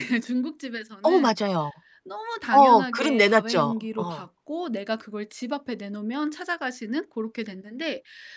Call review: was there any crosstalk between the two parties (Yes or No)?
Yes